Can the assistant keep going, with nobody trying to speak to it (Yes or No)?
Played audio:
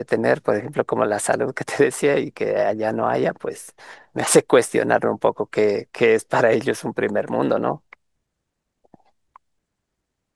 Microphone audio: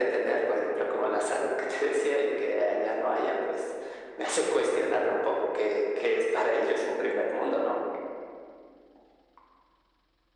Yes